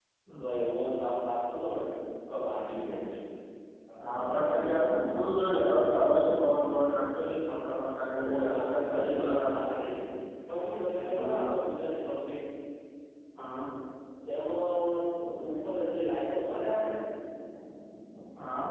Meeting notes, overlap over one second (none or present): present